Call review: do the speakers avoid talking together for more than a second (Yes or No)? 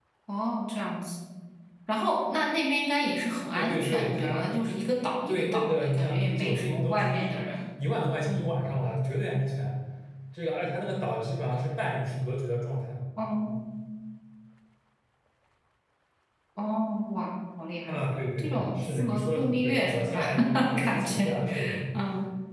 No